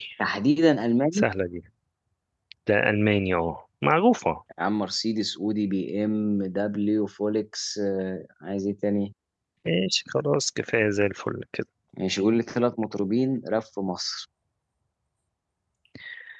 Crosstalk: none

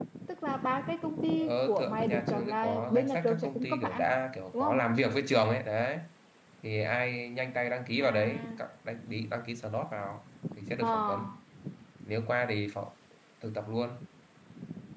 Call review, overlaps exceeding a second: present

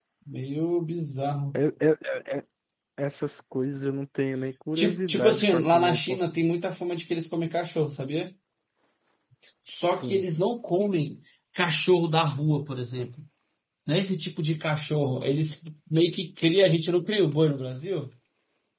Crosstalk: present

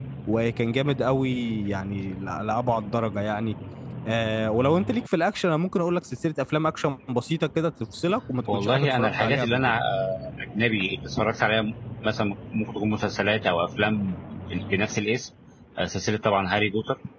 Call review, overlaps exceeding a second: present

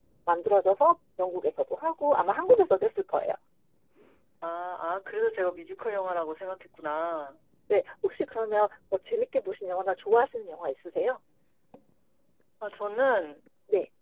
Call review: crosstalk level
none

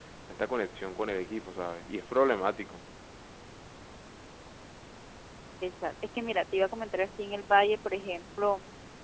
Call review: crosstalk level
none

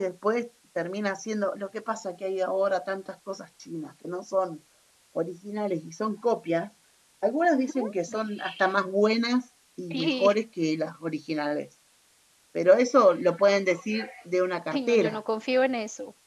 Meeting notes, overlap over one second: none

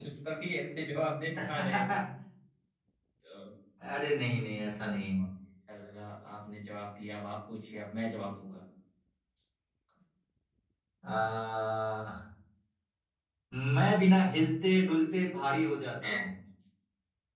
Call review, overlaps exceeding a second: none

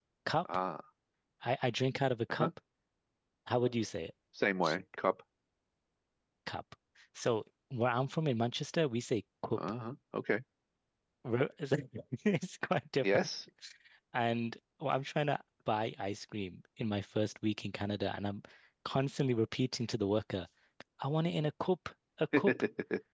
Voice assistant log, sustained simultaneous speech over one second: none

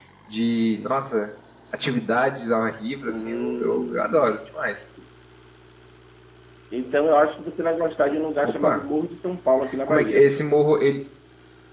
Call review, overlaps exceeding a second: present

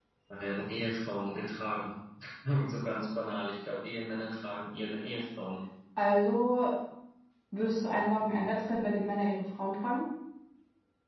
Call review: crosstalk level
none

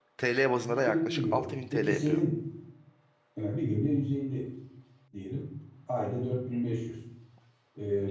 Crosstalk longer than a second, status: present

